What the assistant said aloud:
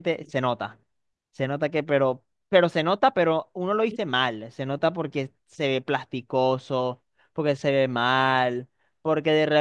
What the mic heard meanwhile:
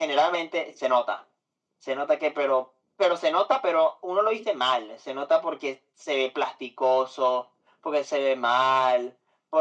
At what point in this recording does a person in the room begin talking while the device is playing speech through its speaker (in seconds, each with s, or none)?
none